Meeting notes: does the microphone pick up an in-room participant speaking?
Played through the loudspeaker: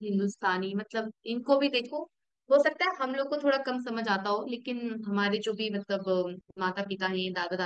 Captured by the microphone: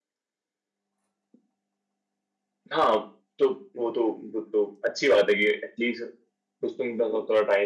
Yes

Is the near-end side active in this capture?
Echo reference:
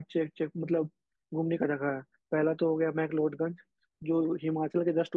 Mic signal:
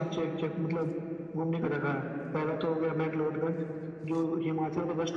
No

